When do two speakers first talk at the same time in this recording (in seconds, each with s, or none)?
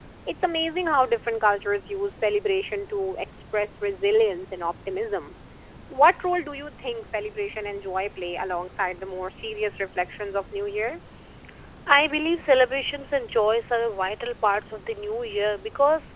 none